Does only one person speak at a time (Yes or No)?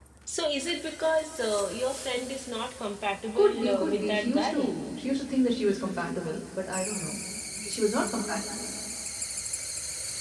No